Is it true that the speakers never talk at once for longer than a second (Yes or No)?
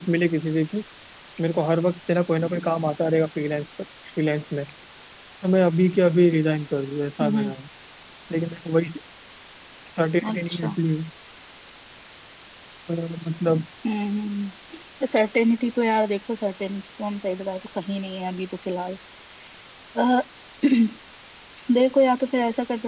Yes